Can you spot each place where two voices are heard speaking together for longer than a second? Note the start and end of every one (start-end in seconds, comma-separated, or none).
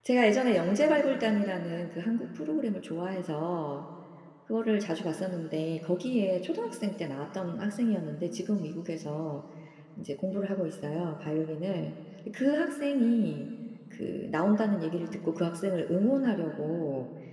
none